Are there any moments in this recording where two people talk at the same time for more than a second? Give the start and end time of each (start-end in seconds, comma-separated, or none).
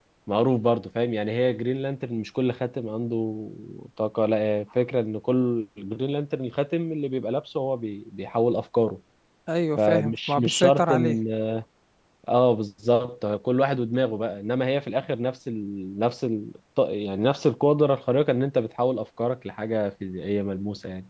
9.8-11.2